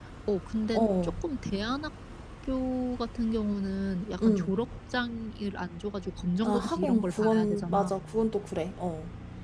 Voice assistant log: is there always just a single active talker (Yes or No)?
No